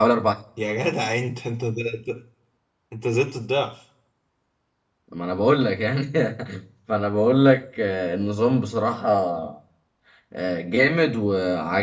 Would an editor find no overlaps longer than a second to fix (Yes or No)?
Yes